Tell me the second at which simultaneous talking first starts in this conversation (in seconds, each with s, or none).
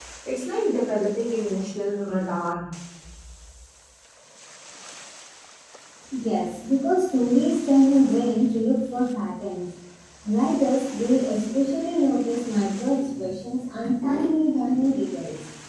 none